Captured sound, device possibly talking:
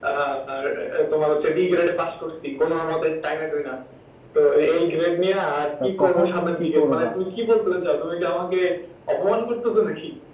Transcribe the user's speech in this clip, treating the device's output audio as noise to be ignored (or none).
তা তখন কি করবা